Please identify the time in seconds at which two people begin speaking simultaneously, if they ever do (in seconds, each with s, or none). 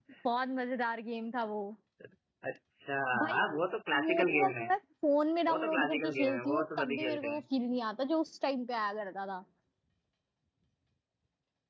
3.3 s